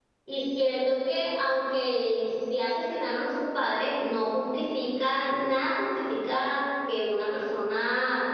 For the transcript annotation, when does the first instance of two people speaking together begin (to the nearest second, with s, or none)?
none